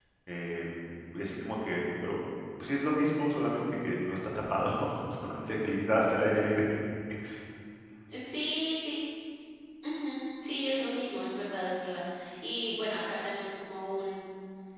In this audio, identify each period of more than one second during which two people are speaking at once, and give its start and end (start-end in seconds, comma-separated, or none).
none